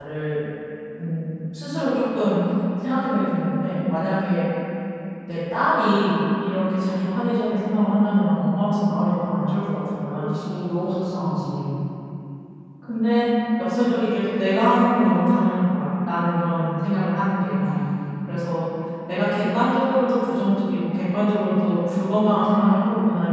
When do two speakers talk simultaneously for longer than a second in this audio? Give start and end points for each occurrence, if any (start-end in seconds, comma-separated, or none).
none